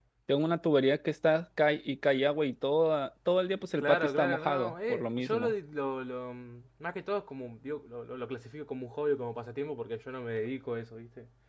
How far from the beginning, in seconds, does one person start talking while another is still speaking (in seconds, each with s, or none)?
3.8 s